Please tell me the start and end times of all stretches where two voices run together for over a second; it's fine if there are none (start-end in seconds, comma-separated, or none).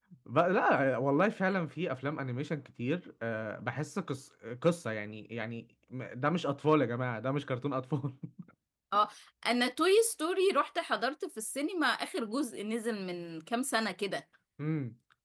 none